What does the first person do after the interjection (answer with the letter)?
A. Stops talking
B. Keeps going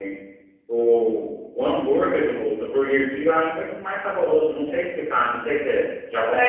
A